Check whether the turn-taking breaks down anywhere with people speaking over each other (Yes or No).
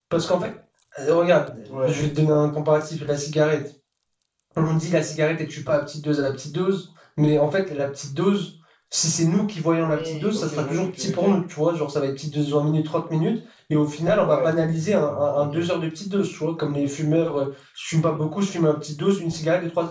Yes